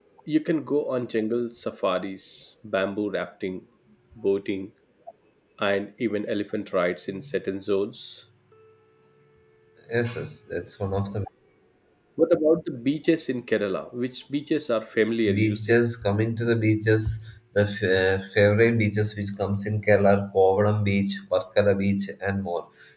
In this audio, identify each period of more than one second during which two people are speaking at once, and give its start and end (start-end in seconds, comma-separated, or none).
none